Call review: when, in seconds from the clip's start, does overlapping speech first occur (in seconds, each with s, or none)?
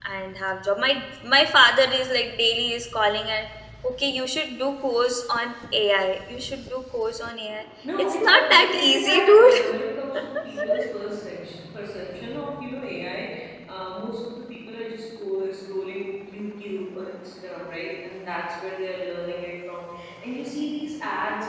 7.8 s